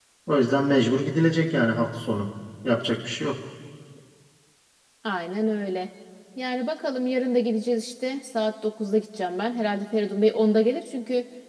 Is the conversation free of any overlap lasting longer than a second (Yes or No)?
Yes